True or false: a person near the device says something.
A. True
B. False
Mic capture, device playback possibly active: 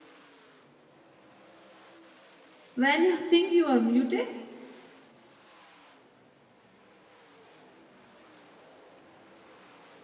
A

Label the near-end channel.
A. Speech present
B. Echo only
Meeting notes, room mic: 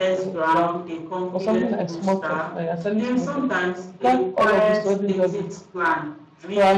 A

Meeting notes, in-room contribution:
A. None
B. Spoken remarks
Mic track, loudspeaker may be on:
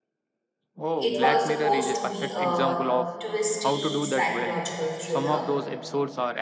B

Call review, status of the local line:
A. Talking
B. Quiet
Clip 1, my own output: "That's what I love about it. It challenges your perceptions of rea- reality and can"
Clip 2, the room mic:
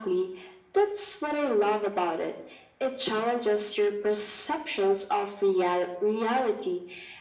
B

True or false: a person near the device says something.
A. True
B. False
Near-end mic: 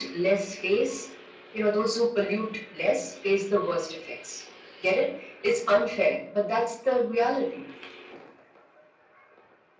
B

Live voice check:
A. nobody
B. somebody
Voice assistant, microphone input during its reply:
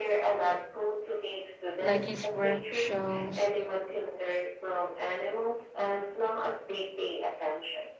B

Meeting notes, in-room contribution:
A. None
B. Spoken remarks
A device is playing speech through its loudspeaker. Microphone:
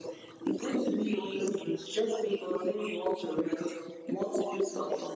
A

